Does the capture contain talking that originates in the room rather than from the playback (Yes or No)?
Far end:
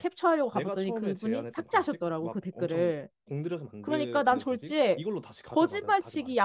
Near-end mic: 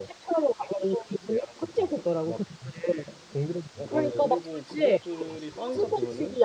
Yes